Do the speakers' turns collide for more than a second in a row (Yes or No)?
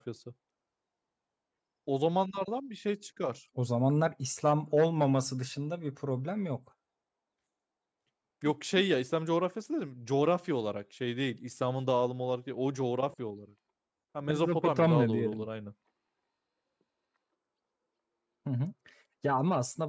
Yes